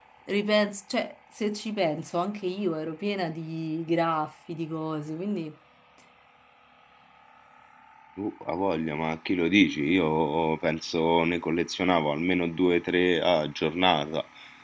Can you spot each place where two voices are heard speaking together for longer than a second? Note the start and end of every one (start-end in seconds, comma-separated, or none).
none